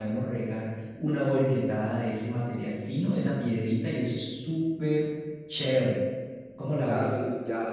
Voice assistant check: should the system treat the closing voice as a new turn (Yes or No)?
Yes